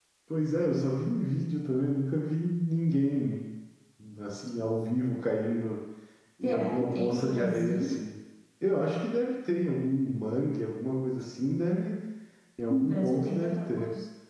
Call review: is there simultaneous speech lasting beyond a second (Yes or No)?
Yes